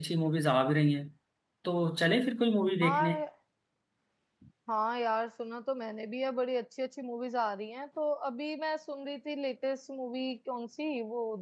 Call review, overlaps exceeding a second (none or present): none